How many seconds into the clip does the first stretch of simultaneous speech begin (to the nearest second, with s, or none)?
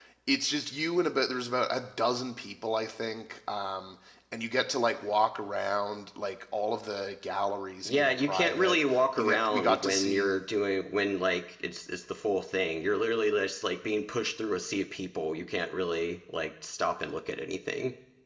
8 s